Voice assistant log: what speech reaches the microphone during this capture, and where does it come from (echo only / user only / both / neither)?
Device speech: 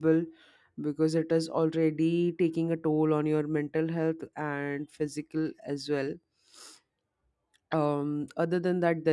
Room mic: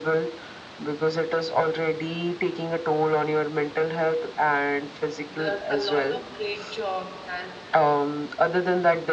both